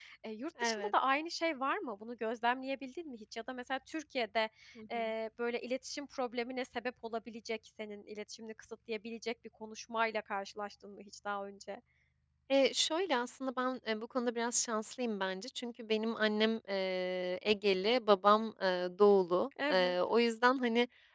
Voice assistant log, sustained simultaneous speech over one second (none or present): none